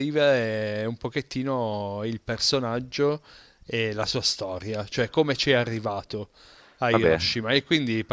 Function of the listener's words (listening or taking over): listening